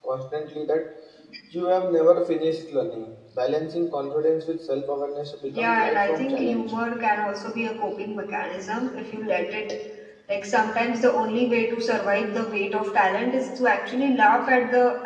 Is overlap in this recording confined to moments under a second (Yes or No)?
No